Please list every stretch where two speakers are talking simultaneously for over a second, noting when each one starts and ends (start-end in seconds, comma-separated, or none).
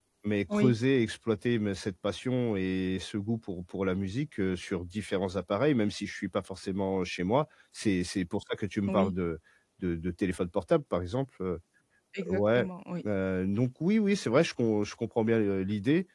none